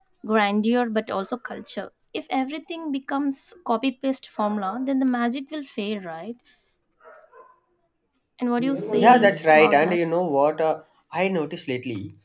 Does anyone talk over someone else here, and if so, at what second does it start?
8.6 s

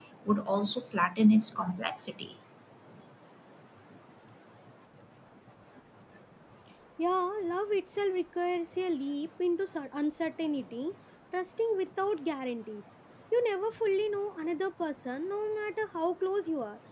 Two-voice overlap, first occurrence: none

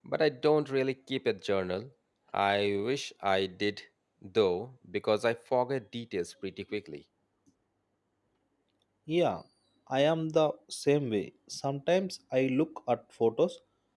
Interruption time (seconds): none

